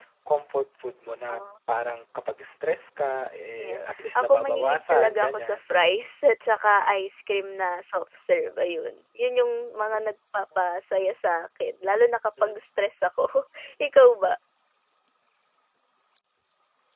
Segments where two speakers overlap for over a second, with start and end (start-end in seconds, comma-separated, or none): 3.6-5.7